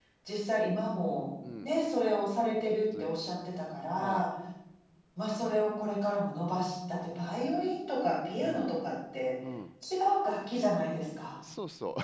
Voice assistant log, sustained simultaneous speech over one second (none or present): none